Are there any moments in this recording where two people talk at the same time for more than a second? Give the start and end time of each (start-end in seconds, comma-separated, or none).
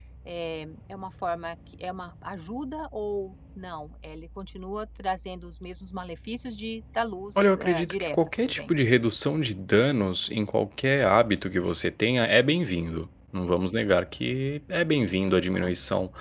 7.4-8.7